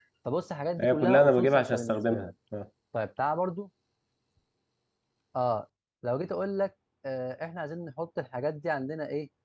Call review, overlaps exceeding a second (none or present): present